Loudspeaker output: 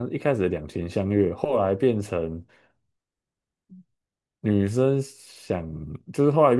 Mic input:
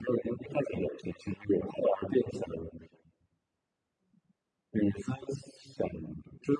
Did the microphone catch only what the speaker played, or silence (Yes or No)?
Yes